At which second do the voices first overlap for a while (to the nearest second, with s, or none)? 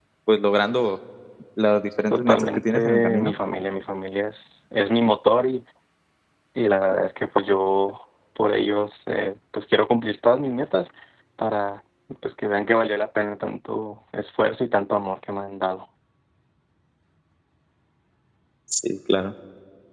2 s